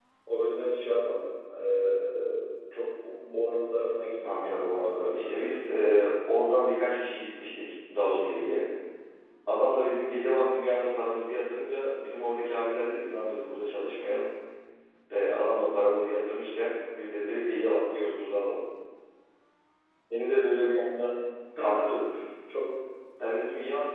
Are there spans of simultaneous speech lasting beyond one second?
Yes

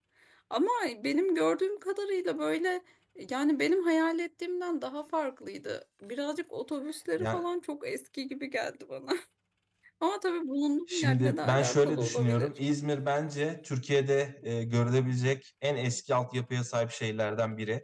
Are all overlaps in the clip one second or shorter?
No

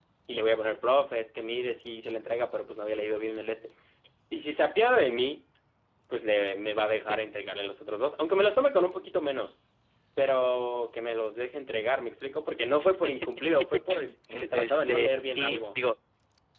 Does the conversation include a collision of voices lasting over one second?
Yes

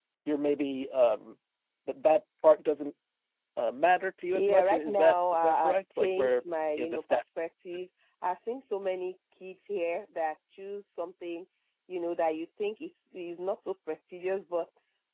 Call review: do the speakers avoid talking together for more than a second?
No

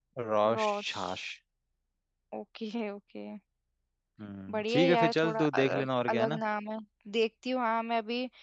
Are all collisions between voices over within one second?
No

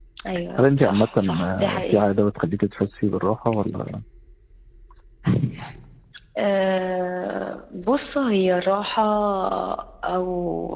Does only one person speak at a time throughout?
No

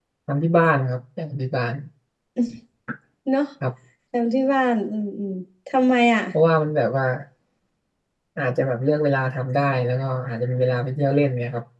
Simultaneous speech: No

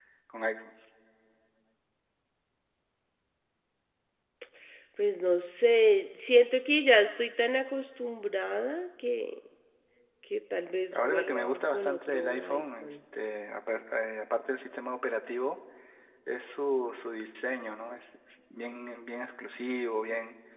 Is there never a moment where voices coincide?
No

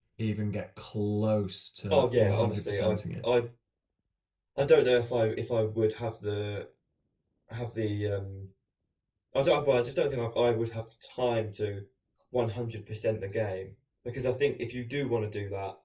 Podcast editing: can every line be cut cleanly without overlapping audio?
No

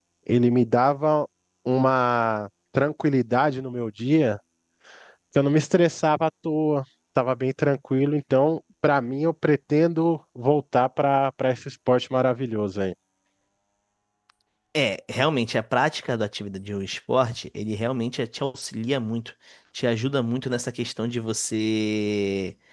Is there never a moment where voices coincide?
Yes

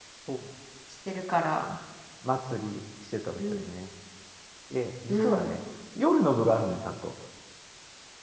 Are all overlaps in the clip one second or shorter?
Yes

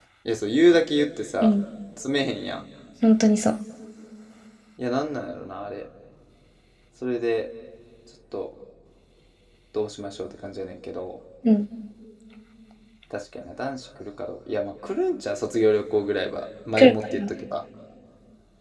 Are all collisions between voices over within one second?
Yes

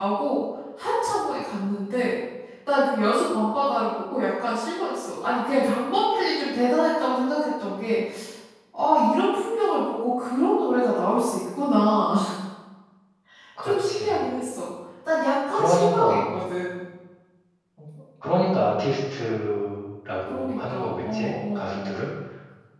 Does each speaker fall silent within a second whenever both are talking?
No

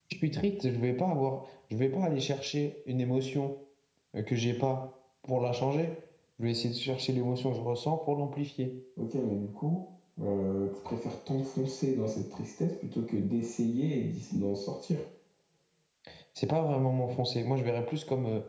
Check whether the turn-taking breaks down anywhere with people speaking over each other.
No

